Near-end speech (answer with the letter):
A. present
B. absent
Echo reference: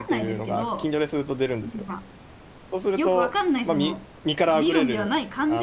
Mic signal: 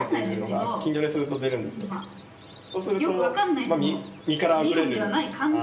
B